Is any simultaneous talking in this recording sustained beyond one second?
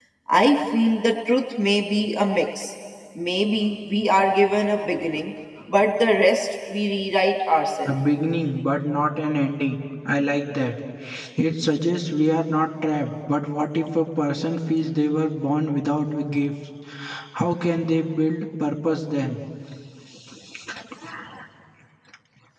No

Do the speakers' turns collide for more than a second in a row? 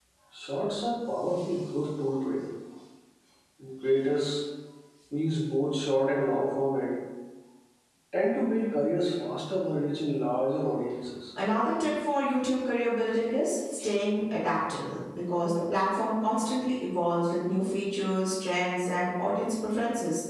No

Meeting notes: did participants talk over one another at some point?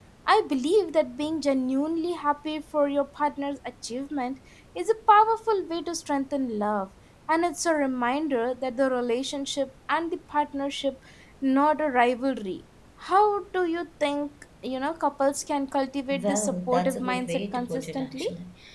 Yes, from 16.1 s

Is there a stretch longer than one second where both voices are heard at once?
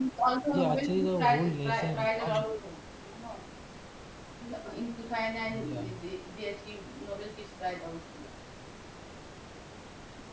Yes, from 0.5 s

